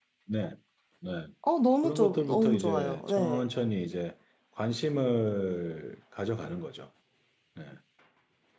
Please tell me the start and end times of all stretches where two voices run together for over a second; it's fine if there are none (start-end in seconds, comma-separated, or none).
1.8-3.4